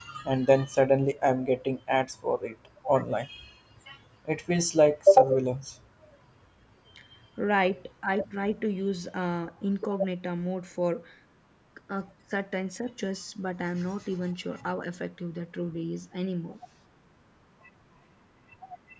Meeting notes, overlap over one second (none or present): none